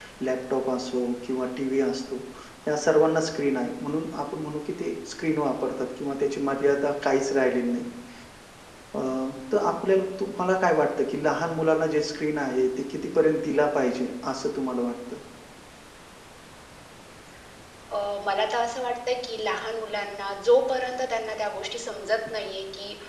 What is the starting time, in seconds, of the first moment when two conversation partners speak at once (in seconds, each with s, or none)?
none